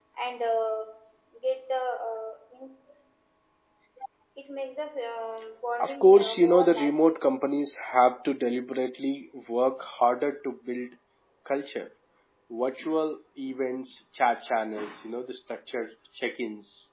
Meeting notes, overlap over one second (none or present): present